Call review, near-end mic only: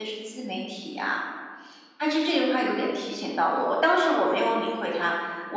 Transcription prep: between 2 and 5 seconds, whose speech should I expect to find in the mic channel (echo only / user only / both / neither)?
user only